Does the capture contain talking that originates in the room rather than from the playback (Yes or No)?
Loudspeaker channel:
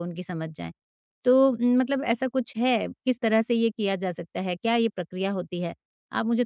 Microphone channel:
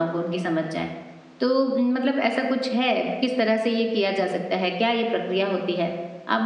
No